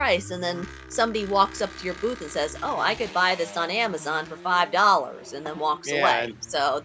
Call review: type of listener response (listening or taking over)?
taking over